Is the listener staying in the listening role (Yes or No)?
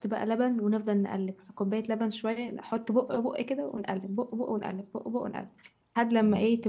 Yes